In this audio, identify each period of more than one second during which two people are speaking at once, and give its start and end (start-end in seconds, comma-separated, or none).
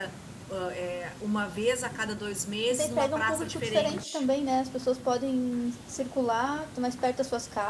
2.7-4.2